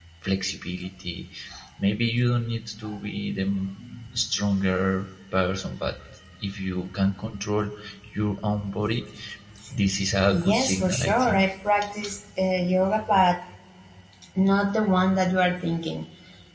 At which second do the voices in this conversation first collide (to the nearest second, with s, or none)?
10 s